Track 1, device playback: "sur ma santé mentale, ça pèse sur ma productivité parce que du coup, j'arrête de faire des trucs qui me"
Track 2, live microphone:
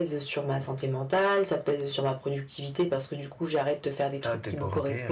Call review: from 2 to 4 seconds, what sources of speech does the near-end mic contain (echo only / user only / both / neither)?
echo only